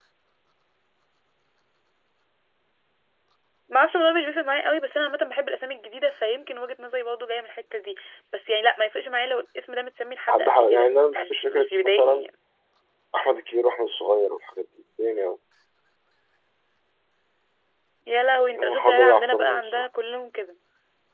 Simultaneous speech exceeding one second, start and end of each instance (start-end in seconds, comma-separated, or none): 10.3-12.2, 18.6-19.9